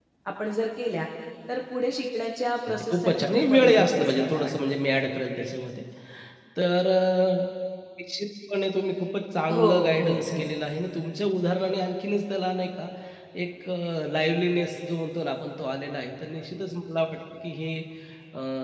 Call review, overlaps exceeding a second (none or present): present